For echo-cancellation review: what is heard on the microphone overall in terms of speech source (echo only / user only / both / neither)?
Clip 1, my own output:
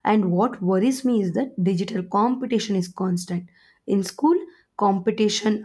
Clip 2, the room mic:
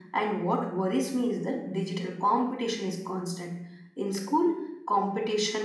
echo only